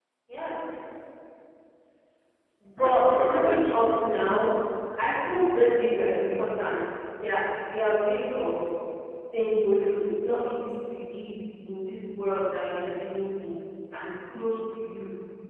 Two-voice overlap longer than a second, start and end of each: 2.8-4.2

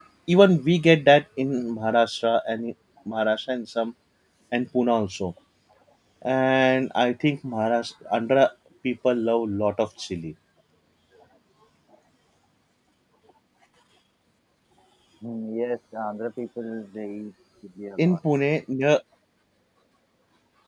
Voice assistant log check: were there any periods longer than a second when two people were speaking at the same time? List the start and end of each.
none

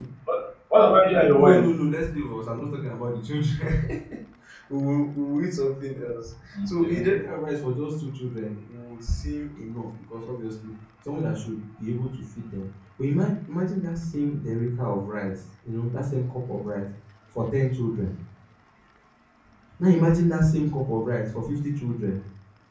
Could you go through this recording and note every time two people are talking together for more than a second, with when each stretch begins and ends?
none

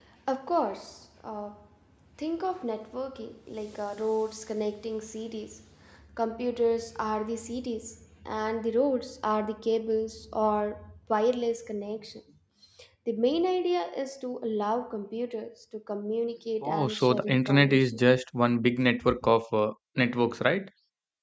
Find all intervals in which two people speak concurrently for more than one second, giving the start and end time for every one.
16.6-18.0

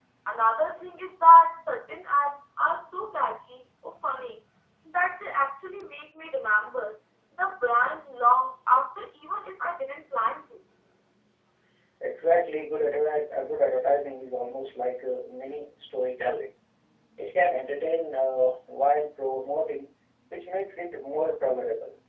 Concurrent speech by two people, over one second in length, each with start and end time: none

